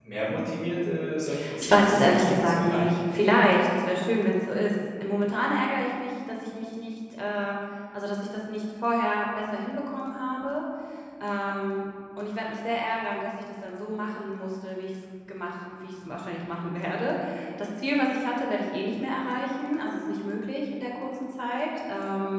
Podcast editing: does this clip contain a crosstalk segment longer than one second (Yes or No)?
Yes